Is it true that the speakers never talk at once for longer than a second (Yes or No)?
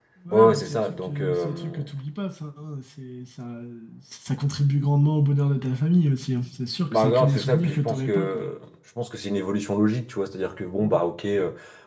No